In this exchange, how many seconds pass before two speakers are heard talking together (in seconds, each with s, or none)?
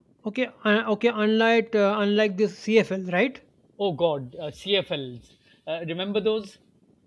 none